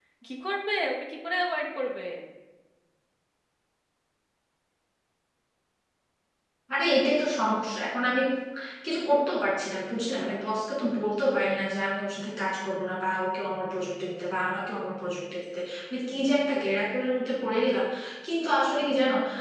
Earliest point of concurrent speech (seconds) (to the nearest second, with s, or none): none